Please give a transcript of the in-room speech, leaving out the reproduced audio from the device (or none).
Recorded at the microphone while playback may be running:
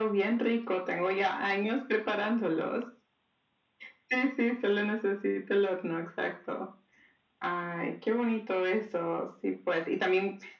none